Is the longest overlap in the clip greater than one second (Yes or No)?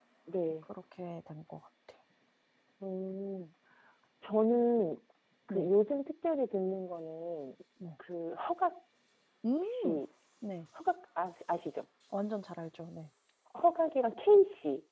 No